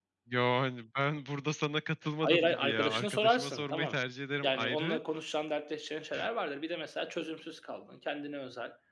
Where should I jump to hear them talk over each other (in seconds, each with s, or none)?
2.2 s